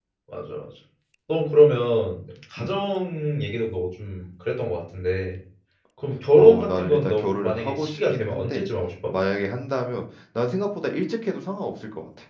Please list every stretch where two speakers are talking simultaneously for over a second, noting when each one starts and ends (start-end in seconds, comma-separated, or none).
6.3-8.6